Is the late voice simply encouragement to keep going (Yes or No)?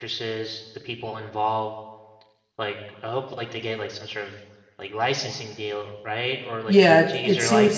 No